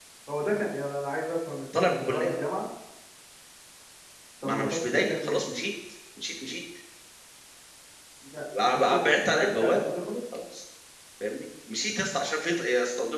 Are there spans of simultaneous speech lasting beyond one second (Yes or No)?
Yes